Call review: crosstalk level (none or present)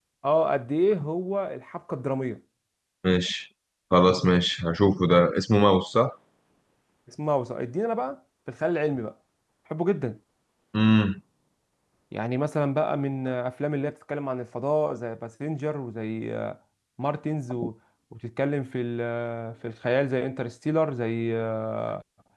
none